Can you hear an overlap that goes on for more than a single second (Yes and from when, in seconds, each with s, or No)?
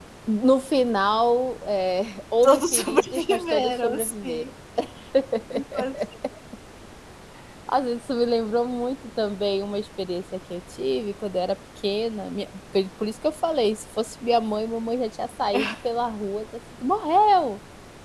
Yes, from 2.4 s